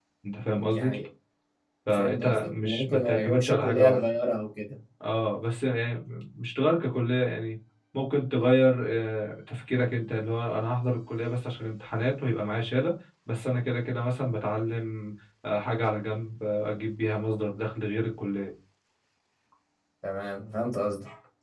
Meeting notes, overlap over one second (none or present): present